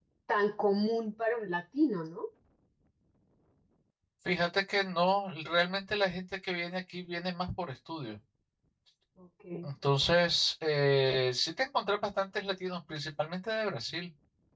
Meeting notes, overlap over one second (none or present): none